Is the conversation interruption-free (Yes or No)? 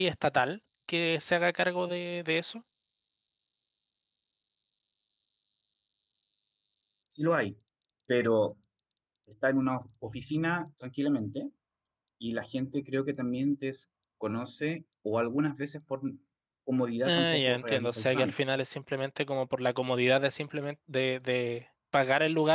No